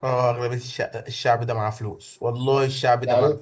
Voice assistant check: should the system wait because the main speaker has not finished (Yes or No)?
No